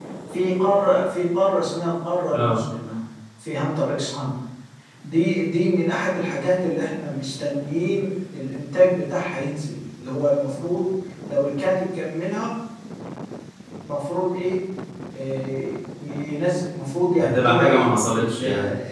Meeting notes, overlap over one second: present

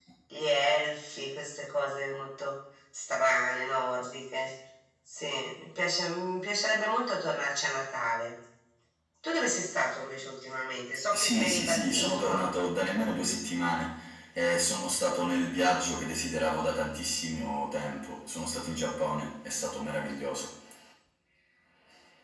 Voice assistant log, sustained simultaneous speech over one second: present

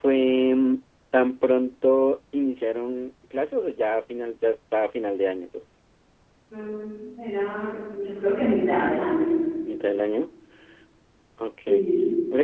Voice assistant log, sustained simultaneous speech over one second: none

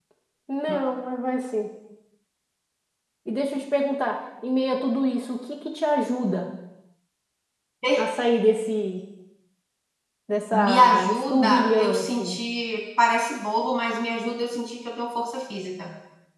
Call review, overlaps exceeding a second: present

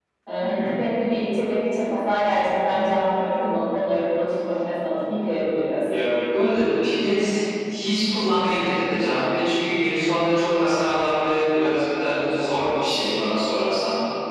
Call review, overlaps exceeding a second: none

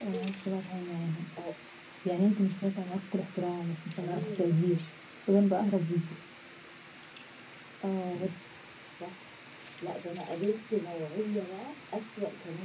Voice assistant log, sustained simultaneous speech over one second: none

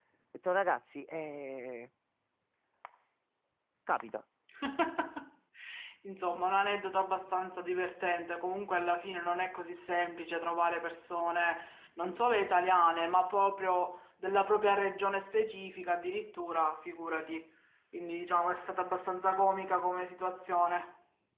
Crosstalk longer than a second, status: none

